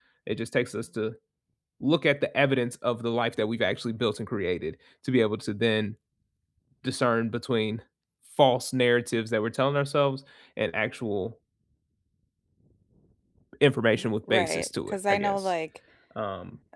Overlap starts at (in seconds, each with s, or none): 14.3 s